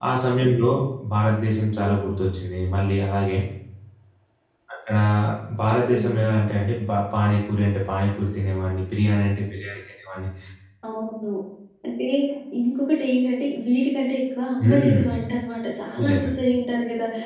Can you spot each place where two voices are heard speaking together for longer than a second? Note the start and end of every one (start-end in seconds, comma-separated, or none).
none